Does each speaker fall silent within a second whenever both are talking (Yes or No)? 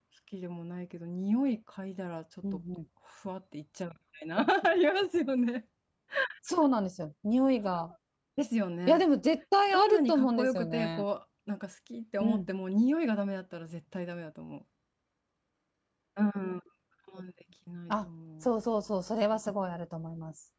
No